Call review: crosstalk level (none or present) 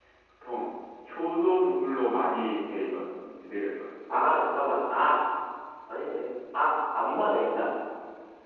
none